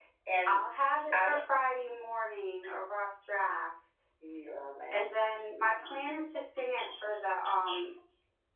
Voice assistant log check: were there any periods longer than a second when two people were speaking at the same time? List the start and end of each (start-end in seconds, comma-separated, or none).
none